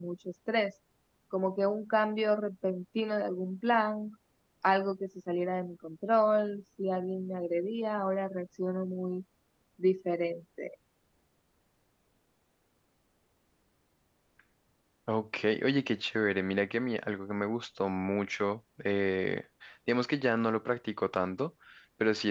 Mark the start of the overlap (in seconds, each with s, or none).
none